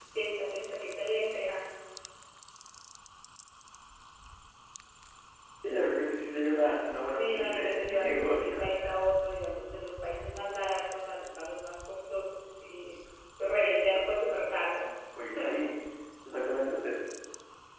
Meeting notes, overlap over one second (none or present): present